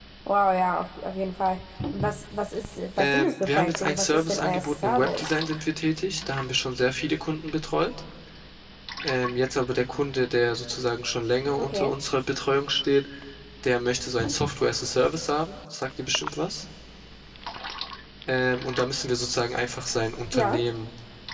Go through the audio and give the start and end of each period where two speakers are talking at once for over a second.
3.0-5.2

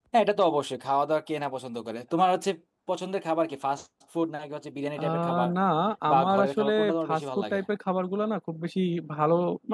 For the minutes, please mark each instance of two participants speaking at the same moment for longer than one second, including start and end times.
6.1-7.6

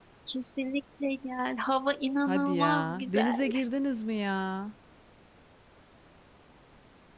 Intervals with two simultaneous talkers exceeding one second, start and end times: 2.3-3.5

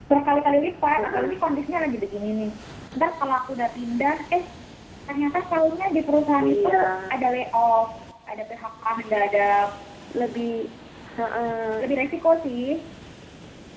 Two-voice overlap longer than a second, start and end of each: none

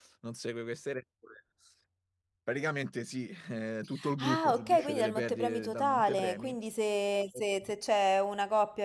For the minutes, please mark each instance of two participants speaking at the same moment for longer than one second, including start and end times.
4.2-6.5

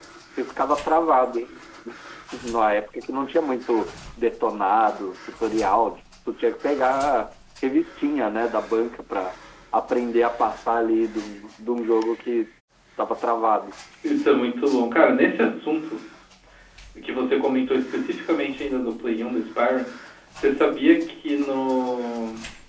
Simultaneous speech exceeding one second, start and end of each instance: none

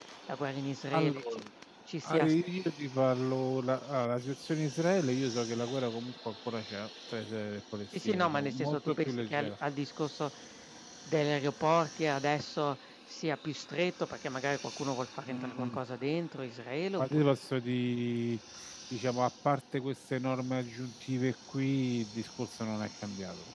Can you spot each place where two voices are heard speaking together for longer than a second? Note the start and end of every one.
8.0-9.5

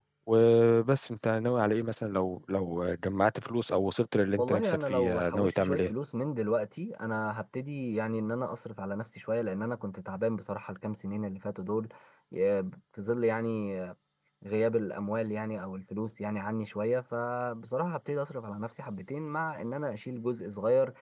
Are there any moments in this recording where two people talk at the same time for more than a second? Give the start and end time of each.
4.4-5.9

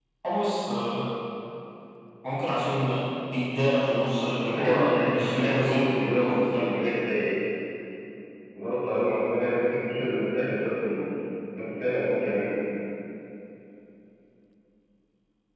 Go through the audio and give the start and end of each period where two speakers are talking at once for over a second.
4.5-6.7

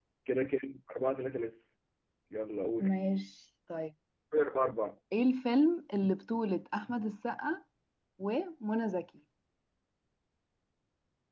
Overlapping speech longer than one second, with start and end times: none

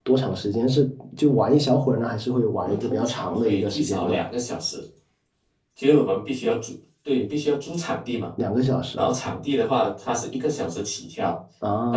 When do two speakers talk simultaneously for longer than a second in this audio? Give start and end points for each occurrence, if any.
2.6-4.3

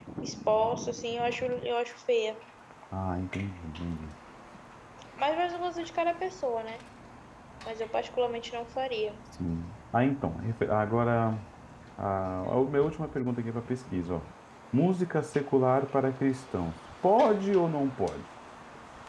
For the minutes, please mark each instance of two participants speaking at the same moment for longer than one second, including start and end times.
none

